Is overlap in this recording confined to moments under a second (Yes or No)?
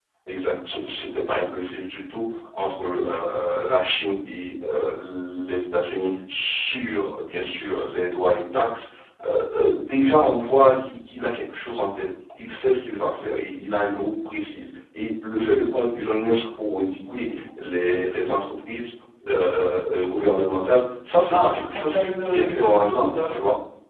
No